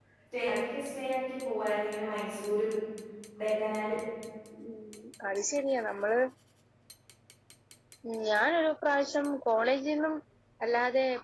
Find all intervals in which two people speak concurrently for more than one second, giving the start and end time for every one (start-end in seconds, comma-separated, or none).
none